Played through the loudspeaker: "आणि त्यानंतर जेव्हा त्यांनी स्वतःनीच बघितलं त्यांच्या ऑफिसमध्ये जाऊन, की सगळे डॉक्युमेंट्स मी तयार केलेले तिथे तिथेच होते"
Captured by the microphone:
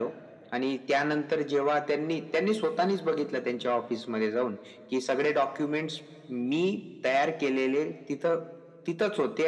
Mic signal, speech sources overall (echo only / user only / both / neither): echo only